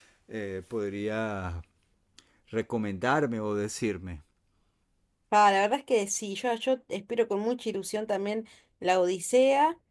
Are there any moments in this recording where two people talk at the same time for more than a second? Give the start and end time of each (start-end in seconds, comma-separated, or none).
none